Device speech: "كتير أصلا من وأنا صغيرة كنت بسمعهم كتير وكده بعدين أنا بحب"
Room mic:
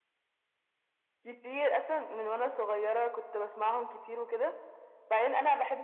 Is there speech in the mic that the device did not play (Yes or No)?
No